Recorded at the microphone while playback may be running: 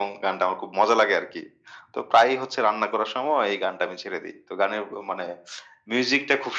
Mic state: echo only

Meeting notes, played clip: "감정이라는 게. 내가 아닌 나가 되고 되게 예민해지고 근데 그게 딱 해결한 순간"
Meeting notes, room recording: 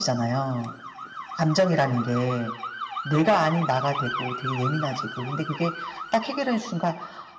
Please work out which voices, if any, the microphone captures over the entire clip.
echo only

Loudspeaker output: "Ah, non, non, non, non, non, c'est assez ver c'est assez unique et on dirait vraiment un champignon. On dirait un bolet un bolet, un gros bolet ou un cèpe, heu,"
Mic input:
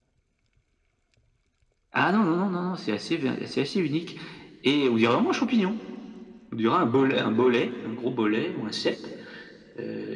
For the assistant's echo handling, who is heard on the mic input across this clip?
echo only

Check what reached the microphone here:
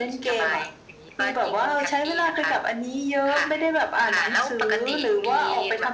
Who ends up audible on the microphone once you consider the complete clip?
echo only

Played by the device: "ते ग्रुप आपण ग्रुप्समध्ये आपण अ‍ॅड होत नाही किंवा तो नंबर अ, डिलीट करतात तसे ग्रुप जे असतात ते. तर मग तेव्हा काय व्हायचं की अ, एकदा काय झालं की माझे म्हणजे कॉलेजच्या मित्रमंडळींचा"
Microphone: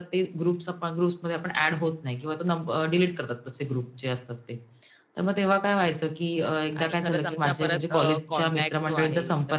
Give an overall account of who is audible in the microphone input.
both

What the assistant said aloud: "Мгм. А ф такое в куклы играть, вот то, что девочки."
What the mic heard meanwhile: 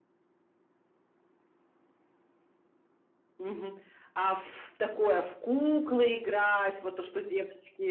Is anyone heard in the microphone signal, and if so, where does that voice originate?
echo only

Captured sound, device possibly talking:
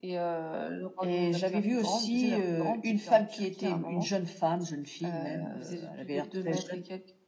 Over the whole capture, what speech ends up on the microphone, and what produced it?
echo only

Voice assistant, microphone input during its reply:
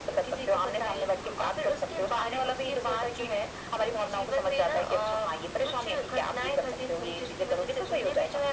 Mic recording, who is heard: echo only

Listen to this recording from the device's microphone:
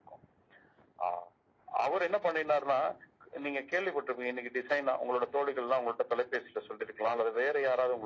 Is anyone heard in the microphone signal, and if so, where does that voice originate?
echo only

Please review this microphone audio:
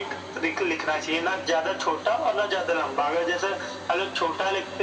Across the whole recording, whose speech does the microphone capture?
echo only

